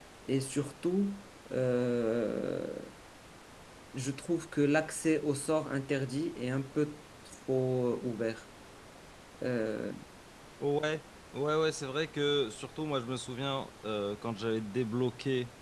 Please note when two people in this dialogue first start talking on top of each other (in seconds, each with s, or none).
none